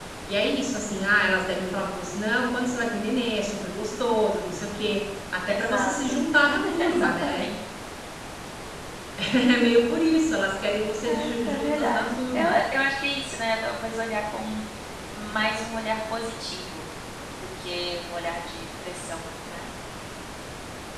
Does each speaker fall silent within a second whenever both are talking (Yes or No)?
No